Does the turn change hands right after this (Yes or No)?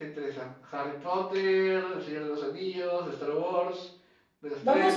Yes